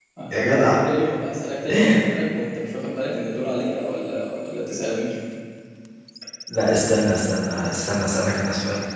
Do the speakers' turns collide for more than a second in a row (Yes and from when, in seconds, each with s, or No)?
No